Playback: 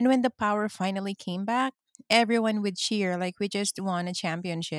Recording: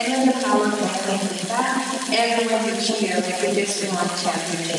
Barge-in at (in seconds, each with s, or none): none